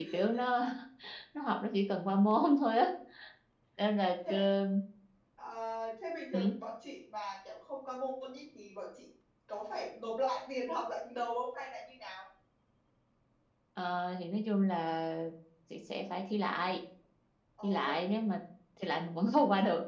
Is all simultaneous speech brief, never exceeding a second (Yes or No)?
Yes